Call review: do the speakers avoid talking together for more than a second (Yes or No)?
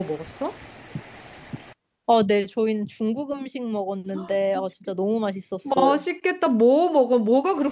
Yes